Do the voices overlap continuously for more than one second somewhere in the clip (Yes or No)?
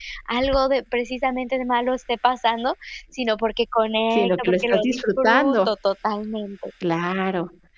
Yes